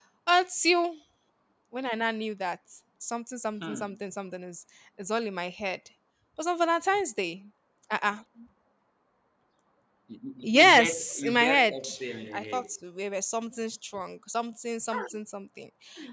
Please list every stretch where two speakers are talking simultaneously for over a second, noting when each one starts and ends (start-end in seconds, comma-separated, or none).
10.4-11.8